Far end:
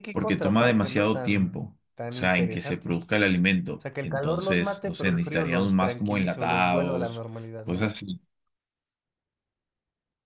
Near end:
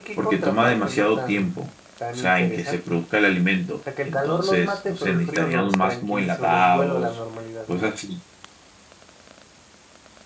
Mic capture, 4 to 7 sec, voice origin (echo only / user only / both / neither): echo only